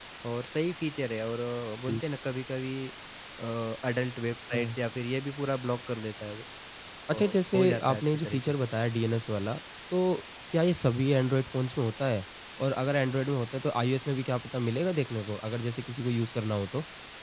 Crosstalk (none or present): present